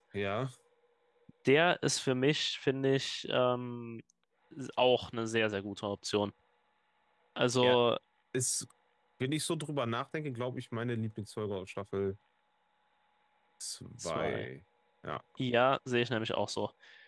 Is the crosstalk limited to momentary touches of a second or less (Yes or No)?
Yes